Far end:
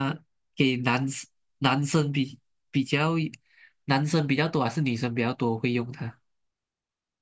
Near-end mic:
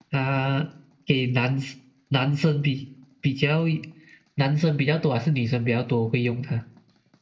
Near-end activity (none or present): none